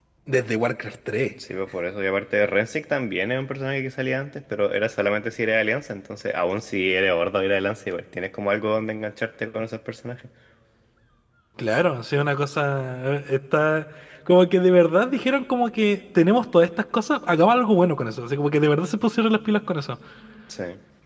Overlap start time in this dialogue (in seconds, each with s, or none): none